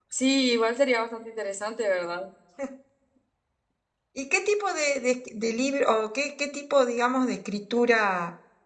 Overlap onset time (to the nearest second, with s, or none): none